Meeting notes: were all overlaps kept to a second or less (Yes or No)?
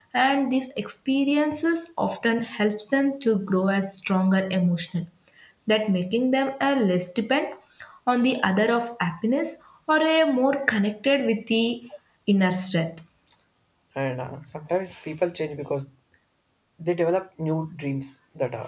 Yes